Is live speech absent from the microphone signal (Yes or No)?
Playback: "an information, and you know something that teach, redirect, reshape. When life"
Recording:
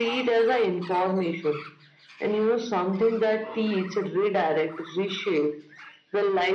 Yes